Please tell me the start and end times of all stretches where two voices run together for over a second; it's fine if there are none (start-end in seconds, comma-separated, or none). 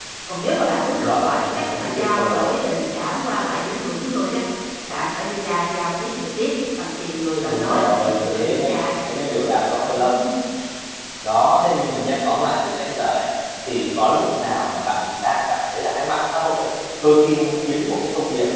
0.9-2.4, 7.4-8.8